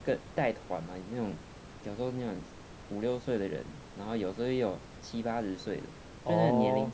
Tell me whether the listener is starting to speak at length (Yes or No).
No